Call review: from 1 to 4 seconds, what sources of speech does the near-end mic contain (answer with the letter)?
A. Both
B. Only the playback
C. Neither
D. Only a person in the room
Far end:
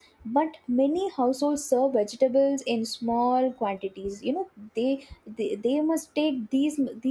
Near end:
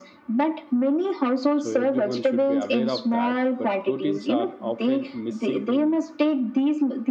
A